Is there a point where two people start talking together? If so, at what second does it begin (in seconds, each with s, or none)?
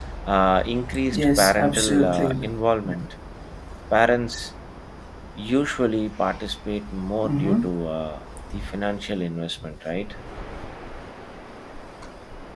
1.1 s